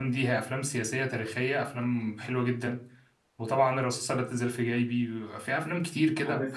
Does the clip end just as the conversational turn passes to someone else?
Yes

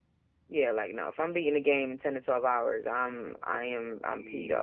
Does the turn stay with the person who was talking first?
No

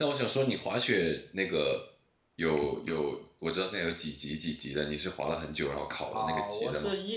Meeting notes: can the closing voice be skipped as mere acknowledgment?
No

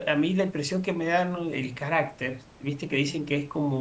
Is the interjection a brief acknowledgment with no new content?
Yes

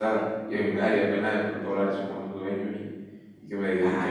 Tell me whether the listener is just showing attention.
No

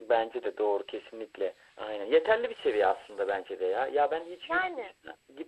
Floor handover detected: No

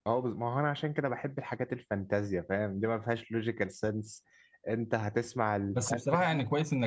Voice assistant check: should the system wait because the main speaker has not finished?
No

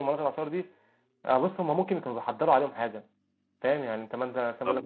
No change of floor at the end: Yes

